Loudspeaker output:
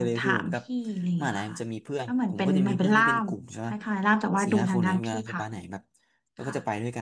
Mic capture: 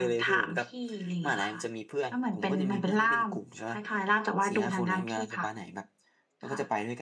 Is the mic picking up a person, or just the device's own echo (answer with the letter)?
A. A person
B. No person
B